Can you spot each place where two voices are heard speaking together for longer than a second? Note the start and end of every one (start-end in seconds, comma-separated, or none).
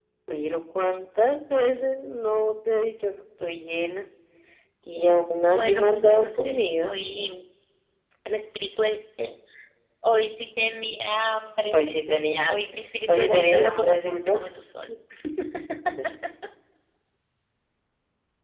5.5-7.0, 13.1-14.4